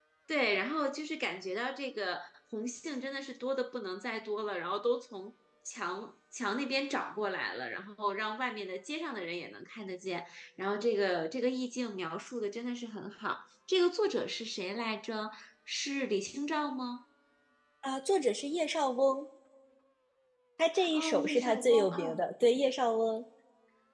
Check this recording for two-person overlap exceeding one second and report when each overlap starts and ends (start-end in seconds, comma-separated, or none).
20.9-22.2